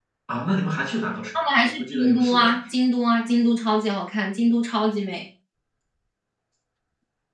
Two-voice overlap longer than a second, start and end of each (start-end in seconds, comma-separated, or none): 1.4-2.6